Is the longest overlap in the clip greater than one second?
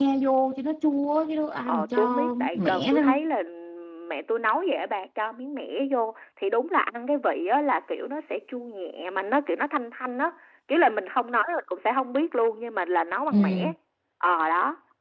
Yes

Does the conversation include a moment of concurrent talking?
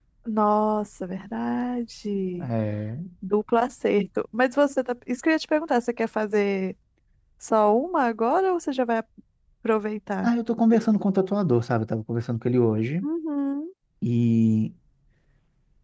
No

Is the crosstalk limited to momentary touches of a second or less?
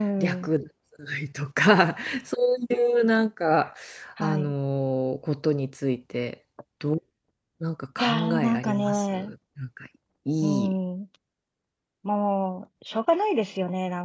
No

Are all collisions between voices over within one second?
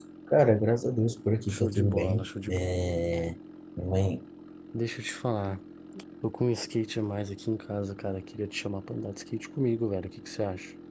No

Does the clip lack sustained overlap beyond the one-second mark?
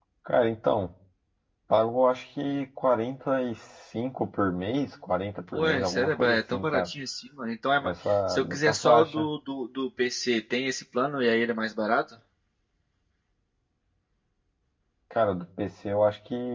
No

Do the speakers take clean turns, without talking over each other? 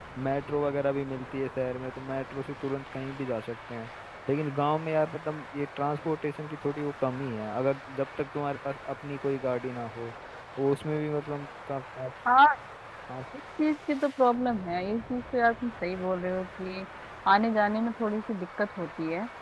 Yes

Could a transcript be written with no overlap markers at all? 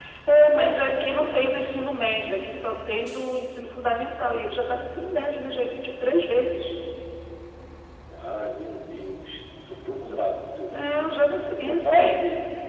No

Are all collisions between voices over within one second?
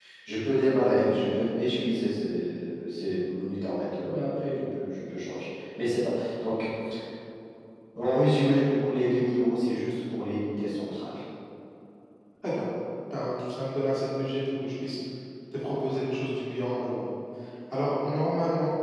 Yes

